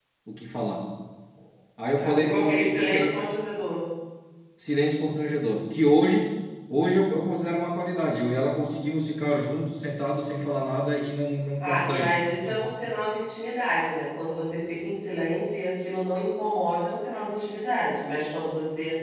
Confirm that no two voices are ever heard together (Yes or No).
No